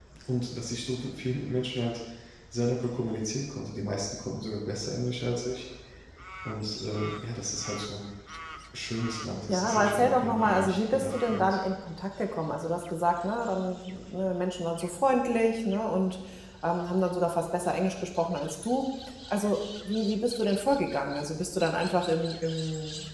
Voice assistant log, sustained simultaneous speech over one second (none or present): present